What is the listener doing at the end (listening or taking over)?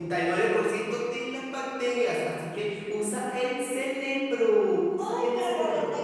taking over